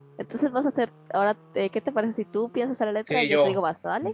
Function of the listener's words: taking over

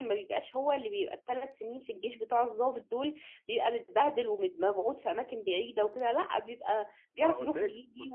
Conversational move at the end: taking over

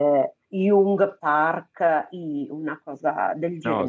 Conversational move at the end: taking over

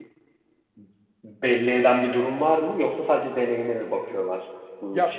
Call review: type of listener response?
taking over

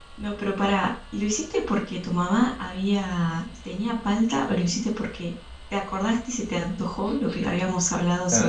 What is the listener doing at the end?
taking over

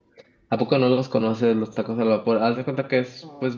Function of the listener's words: listening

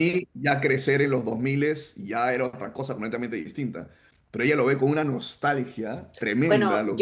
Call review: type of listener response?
taking over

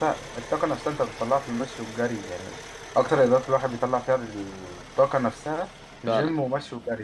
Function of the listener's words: listening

